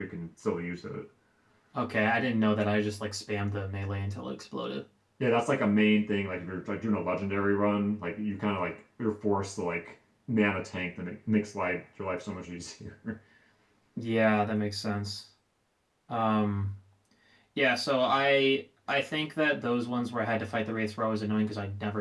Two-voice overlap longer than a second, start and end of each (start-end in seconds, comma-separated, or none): none